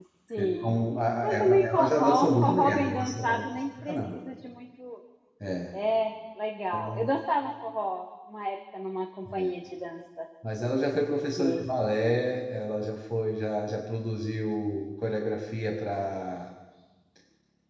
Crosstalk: present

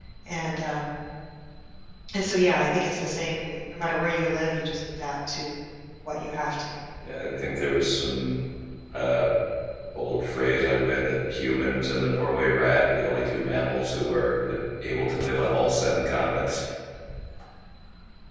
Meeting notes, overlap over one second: none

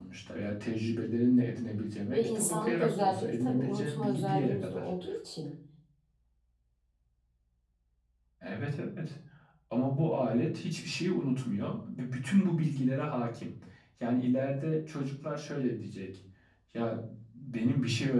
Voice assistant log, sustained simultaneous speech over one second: present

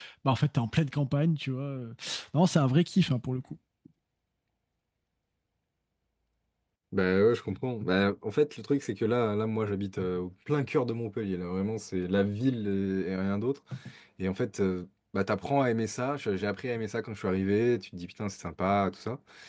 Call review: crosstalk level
none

